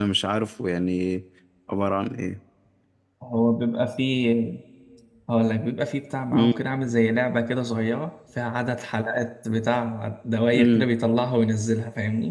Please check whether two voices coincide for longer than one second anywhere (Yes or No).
No